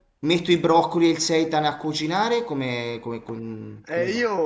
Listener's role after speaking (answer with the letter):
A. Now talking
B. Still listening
A